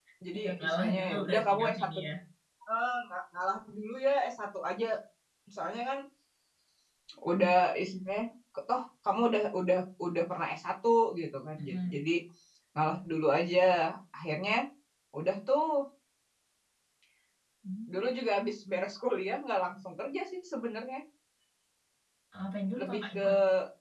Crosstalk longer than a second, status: present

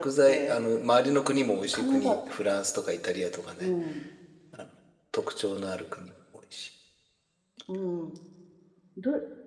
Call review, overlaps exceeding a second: none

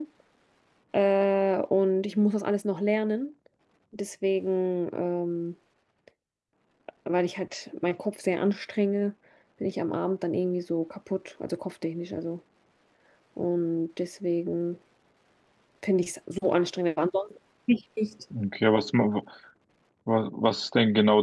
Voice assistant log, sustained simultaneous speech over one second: none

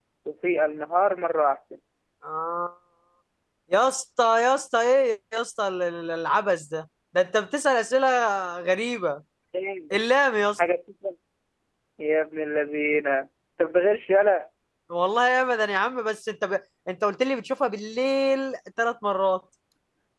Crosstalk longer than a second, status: none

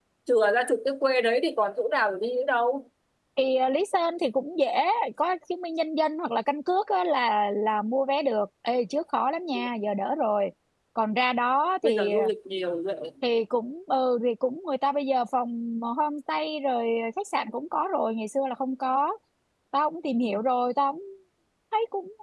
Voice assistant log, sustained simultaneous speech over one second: none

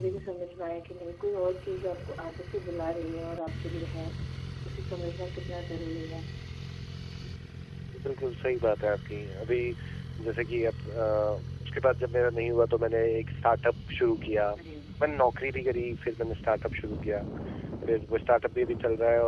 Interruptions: none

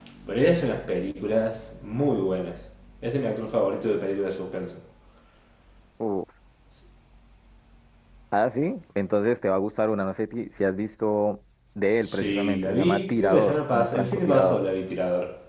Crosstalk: present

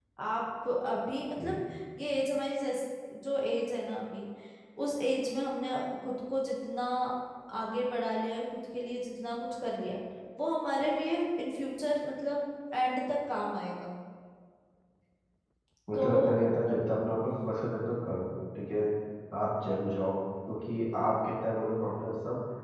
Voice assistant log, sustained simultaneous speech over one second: none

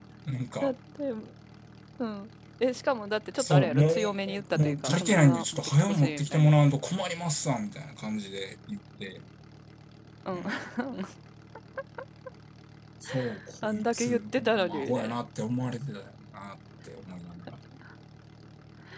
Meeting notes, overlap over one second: present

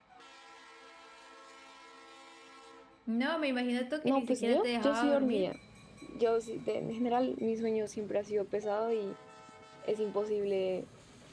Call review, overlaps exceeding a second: present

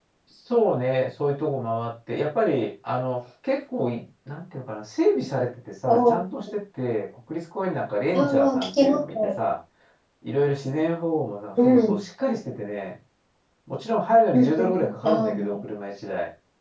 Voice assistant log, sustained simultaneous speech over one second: present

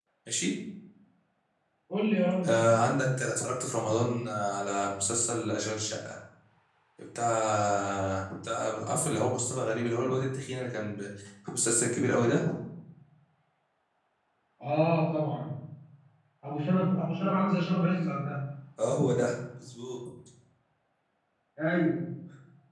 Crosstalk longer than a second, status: none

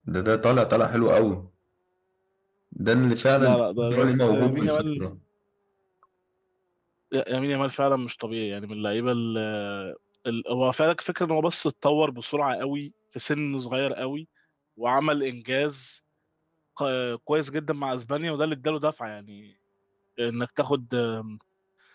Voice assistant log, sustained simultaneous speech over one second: present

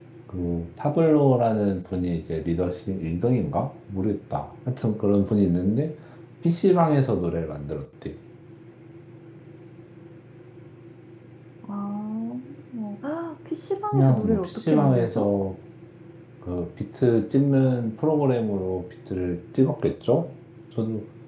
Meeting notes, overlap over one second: present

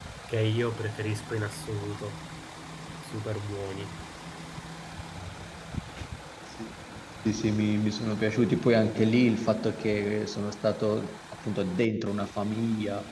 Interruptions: none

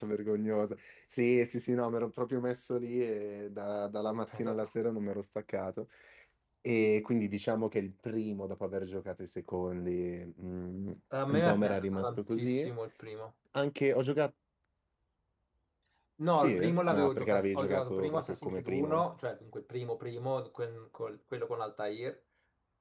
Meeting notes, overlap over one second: present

